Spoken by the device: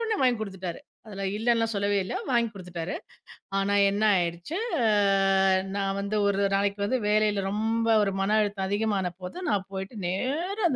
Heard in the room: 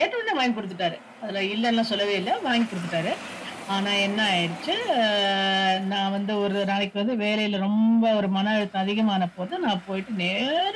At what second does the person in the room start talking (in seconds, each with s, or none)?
none